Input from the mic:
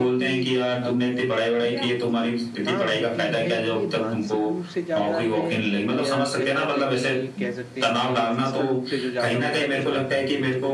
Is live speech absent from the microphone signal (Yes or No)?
No